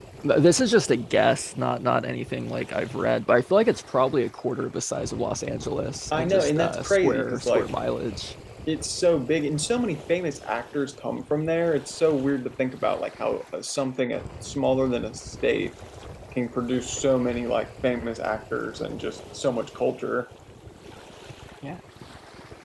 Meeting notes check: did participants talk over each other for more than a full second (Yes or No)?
Yes